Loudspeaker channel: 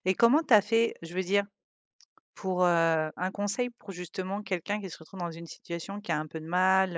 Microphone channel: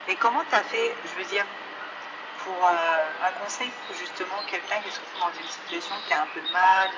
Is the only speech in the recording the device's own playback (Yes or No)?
Yes